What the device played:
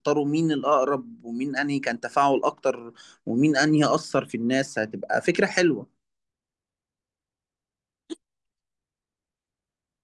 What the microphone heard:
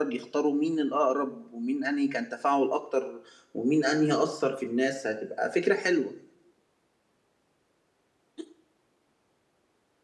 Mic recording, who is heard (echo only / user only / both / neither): echo only